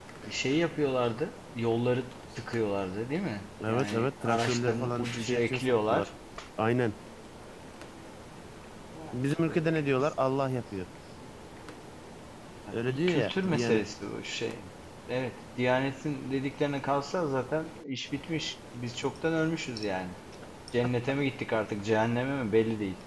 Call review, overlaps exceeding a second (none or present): present